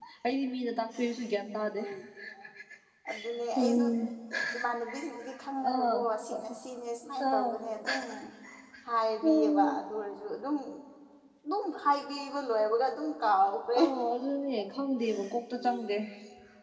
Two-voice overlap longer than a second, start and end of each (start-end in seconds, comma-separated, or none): none